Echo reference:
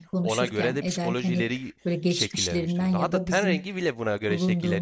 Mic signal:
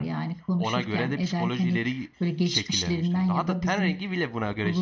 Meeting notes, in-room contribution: none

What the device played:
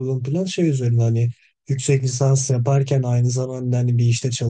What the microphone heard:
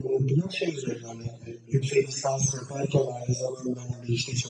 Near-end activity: none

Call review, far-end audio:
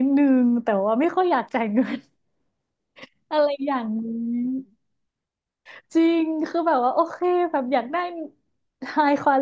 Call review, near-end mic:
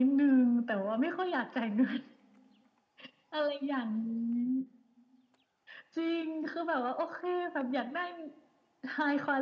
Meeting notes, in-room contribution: none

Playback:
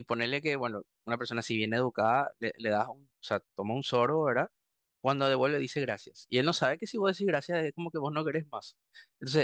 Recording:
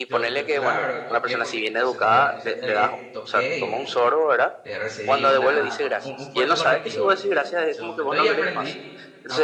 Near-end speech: present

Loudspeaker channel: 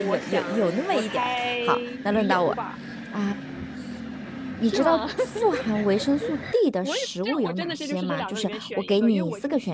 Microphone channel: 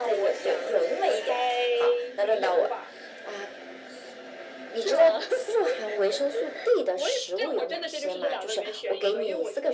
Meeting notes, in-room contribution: none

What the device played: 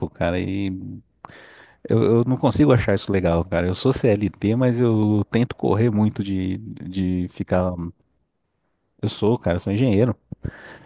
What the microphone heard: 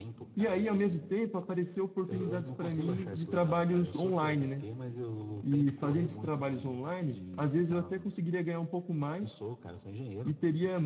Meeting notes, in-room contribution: present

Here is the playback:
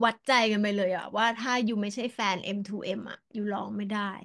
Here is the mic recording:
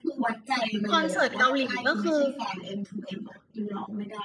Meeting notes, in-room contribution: present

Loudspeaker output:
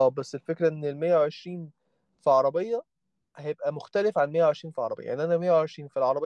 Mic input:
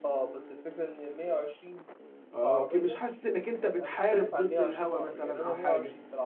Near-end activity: present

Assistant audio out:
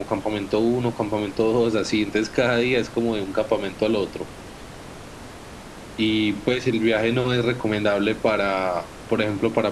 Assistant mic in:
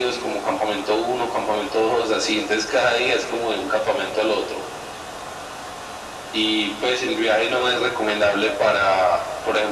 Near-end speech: none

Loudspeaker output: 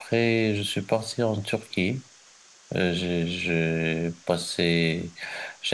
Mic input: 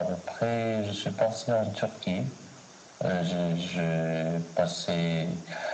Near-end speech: none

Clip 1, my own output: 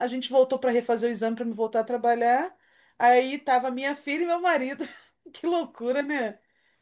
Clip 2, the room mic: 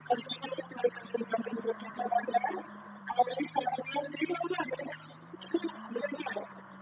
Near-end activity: none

